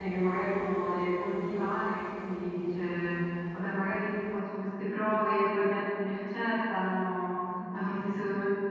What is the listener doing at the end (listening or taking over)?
listening